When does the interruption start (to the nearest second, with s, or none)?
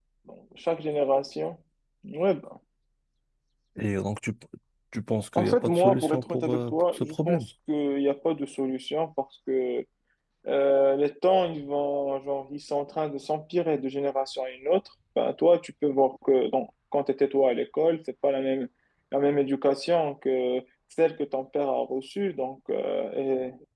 5 s